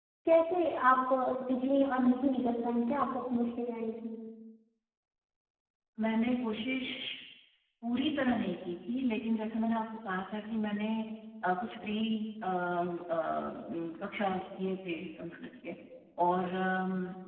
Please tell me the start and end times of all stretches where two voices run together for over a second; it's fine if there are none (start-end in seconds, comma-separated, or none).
none